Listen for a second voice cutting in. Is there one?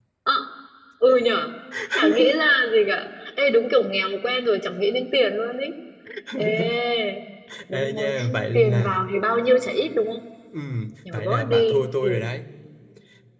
Yes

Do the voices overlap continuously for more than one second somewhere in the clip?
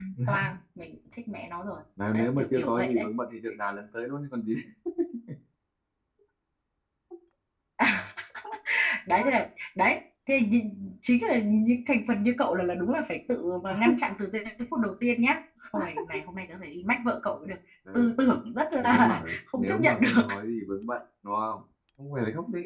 Yes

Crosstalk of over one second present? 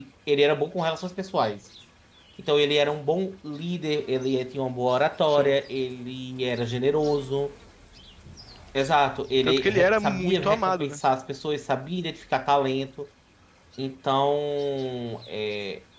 Yes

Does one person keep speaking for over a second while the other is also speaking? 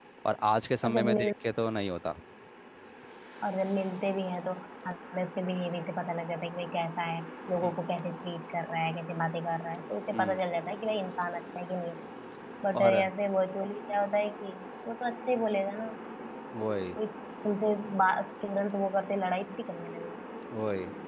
No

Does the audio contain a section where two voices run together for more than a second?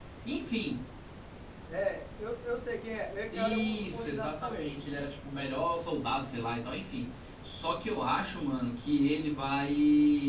Yes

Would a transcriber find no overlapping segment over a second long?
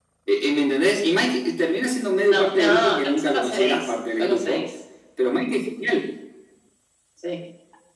No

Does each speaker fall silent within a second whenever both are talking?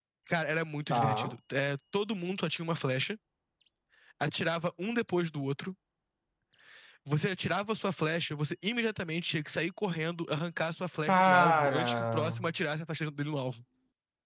No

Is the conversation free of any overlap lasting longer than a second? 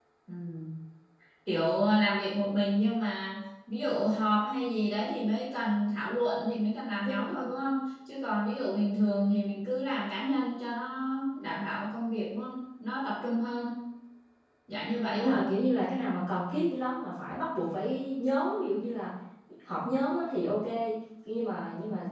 Yes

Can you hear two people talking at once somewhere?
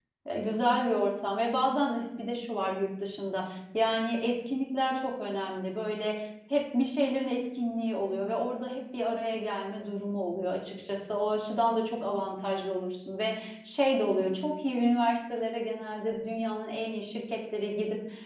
No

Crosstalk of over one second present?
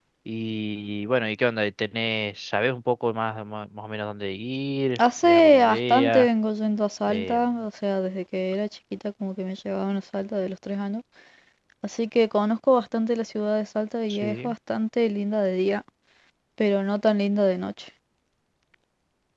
Yes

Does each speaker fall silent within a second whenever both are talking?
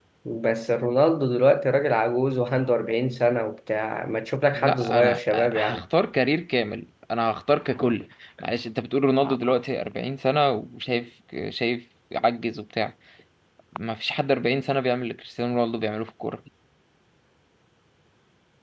No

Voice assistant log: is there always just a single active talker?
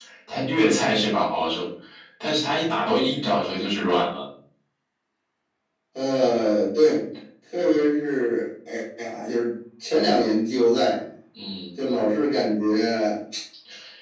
Yes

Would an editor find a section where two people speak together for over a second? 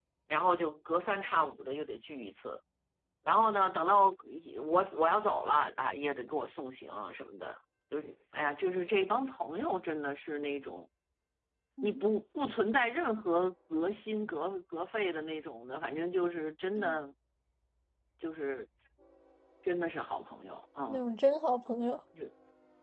No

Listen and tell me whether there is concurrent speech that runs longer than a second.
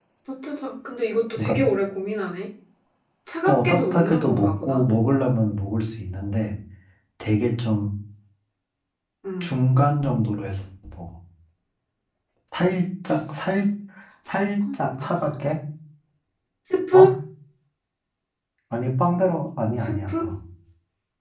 Yes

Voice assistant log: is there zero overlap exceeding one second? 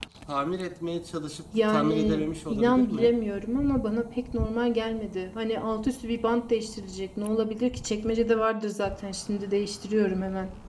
No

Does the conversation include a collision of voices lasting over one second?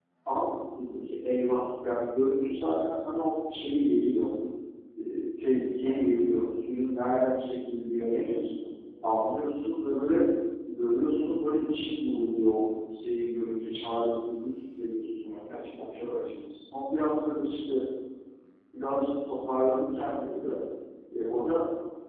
No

